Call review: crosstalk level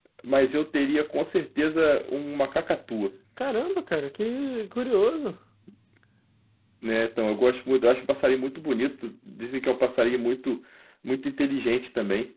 none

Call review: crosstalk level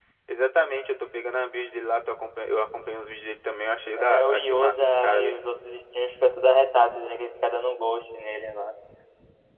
present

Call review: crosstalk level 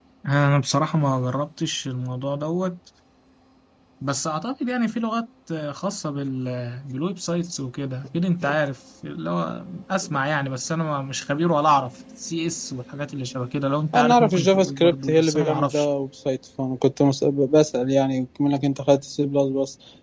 present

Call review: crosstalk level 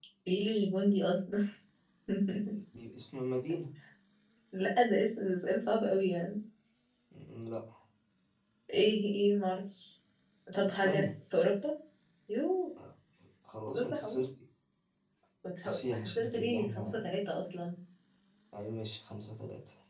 present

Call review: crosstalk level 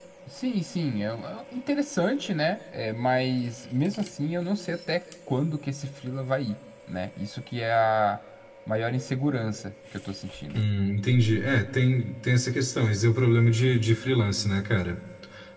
none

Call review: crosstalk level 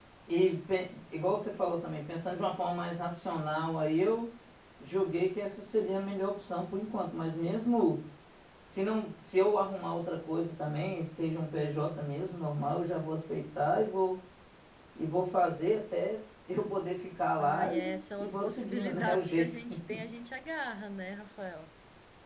present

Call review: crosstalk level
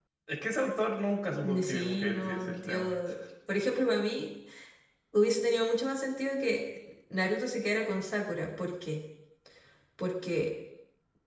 present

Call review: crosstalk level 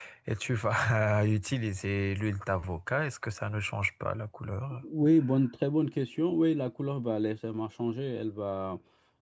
none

